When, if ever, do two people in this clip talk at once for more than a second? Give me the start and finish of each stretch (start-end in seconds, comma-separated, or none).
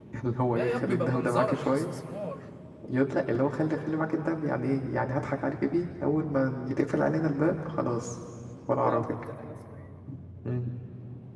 0.5-2.0